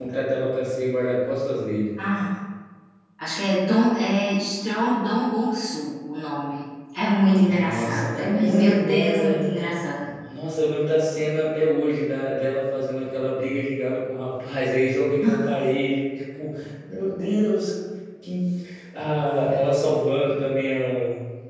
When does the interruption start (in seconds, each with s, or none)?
7.4 s